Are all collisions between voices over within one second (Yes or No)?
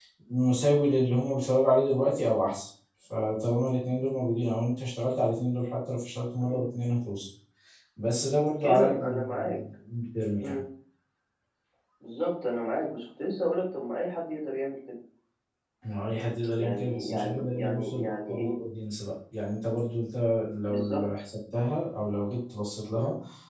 No